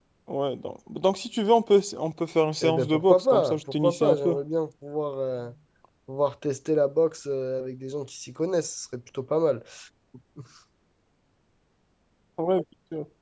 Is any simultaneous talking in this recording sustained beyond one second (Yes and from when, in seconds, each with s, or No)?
Yes, from 2.6 s